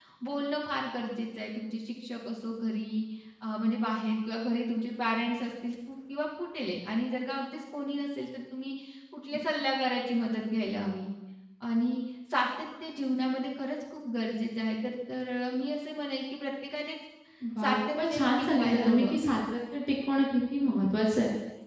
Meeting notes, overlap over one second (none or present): present